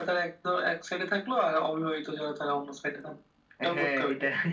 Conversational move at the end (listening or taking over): taking over